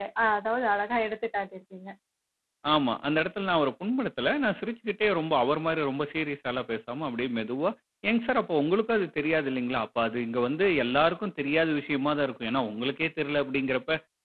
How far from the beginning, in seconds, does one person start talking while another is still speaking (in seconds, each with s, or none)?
none